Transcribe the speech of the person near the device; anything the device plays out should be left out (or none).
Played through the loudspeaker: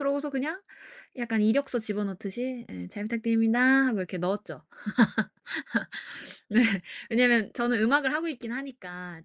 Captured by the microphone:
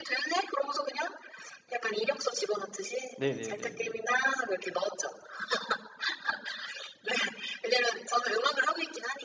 네네네네.